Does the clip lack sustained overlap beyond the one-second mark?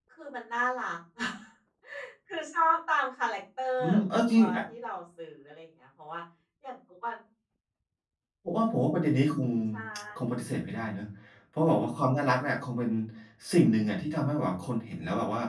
Yes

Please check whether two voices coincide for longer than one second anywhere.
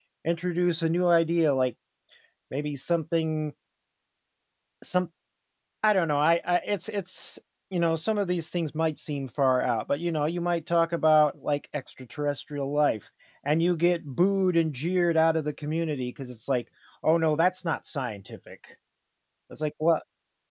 No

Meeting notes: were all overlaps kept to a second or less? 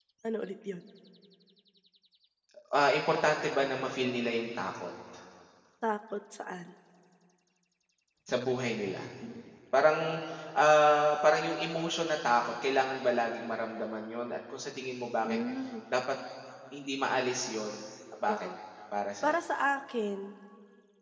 Yes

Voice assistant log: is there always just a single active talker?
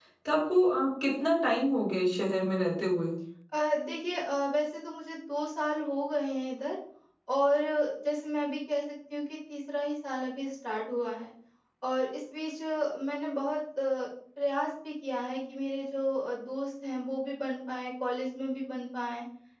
Yes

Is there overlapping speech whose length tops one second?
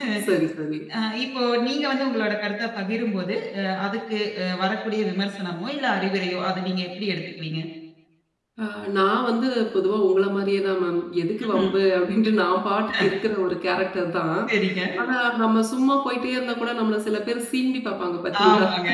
No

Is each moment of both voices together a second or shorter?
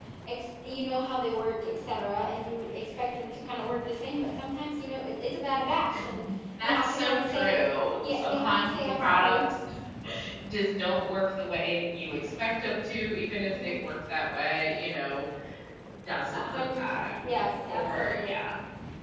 No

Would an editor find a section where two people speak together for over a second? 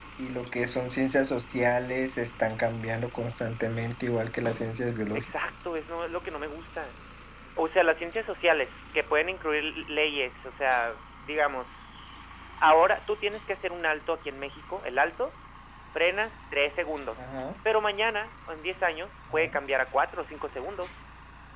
No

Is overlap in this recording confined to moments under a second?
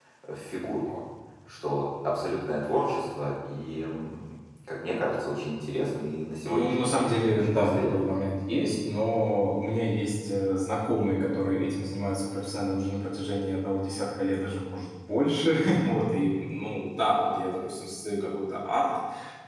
No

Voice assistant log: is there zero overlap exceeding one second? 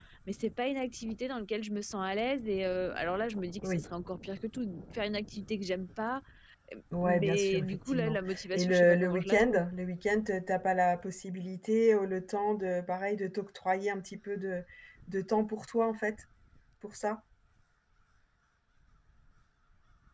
No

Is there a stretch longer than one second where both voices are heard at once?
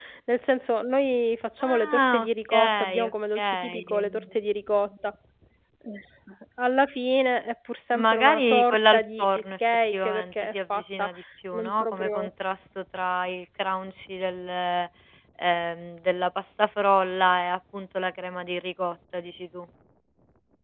Yes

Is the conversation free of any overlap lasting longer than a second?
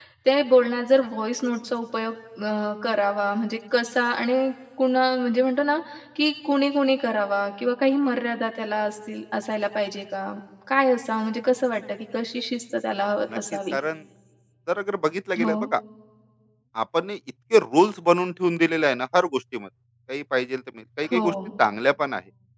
Yes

